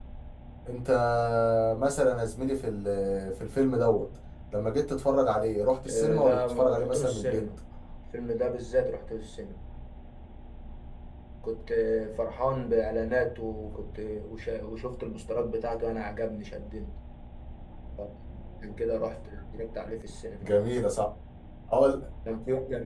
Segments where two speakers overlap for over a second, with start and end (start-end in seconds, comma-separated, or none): 5.9-7.4